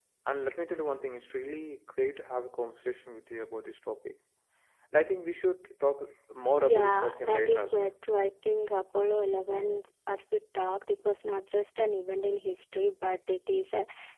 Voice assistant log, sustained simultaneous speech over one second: present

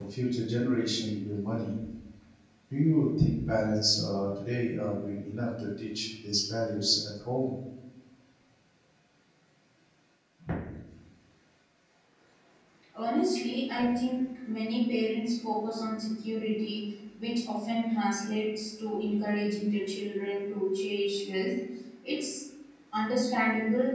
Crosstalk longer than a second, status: none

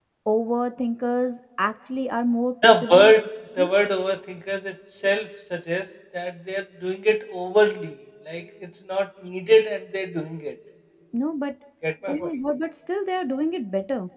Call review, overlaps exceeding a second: none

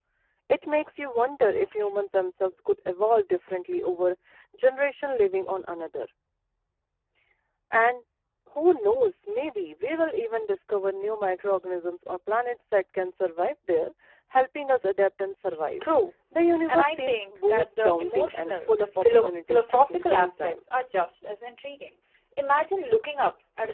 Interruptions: present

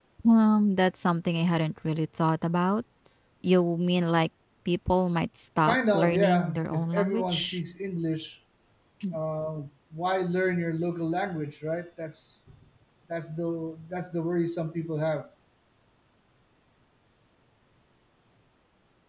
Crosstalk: present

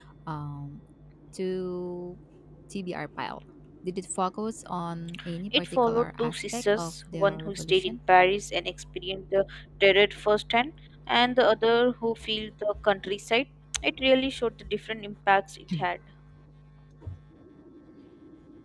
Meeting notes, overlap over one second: present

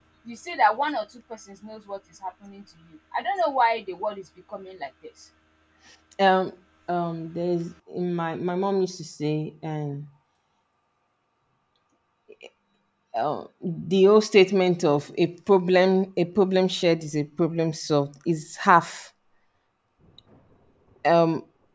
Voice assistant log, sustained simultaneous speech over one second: none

